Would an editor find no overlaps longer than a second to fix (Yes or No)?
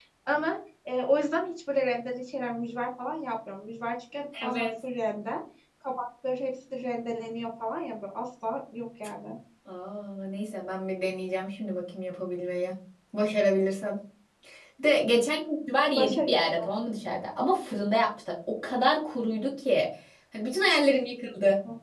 Yes